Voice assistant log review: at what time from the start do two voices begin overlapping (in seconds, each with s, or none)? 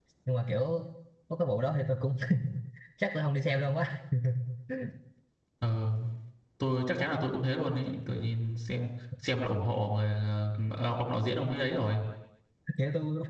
none